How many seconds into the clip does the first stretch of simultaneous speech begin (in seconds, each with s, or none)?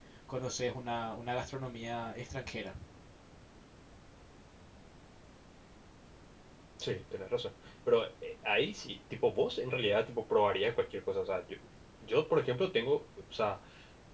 none